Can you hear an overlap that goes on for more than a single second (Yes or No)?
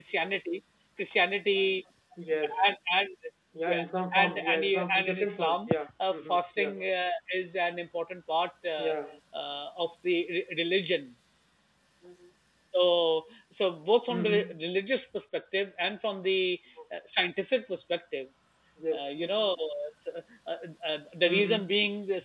Yes